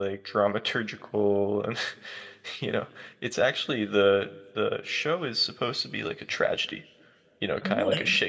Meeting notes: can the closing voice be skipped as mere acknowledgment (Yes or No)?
Yes